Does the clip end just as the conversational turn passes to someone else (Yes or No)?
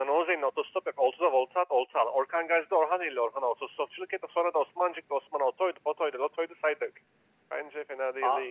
Yes